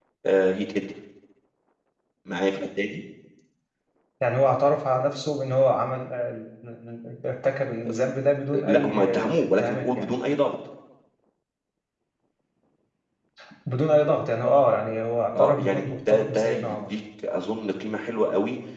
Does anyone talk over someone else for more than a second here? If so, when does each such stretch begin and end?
8.5-10.2, 15.4-16.8

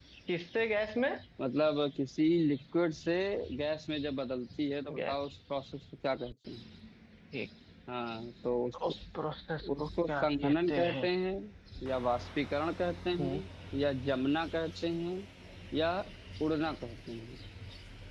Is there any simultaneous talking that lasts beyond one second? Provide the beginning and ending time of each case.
9.8-11.1

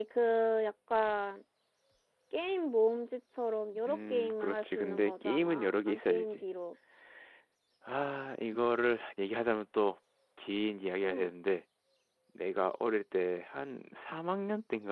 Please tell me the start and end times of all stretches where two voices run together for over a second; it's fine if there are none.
3.9-6.4

